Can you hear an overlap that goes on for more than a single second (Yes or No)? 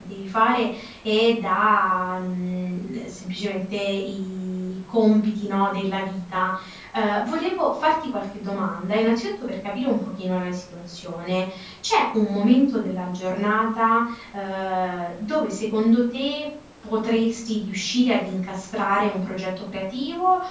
No